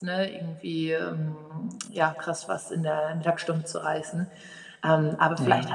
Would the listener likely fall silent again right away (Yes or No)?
Yes